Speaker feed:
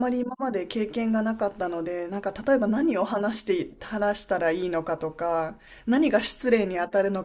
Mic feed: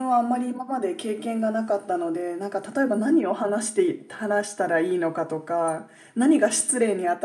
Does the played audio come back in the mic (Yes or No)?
Yes